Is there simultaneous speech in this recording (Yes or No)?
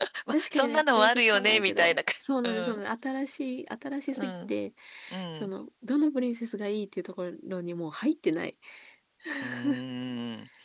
Yes